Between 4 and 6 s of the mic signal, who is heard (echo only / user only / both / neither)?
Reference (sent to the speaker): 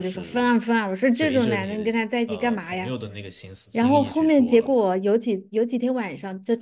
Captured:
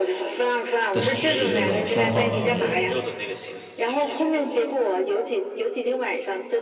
echo only